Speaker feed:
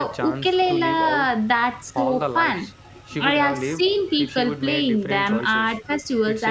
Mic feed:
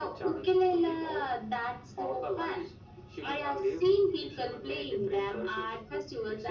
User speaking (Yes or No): No